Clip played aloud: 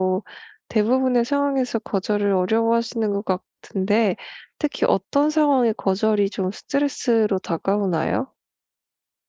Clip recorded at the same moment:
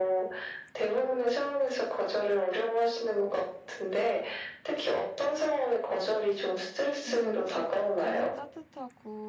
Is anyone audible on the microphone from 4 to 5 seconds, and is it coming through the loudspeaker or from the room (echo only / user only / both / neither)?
echo only